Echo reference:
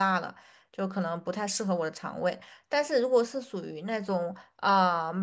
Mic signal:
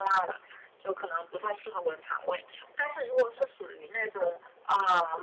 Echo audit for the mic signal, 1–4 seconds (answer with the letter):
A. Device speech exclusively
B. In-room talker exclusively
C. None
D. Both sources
A